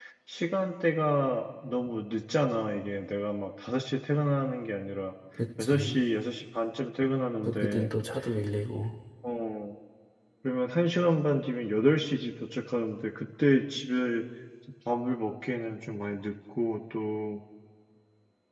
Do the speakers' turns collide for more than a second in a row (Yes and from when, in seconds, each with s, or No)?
No